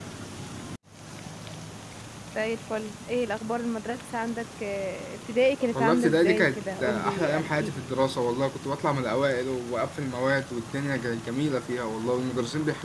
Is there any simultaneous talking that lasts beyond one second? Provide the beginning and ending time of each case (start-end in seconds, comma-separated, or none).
5.7-7.8